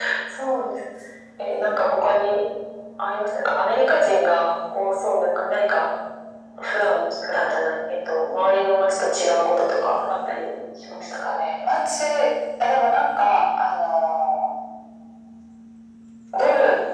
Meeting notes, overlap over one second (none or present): none